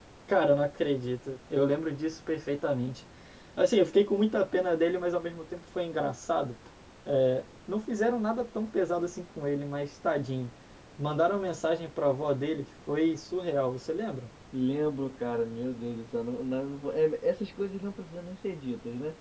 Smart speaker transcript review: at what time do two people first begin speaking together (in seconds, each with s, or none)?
none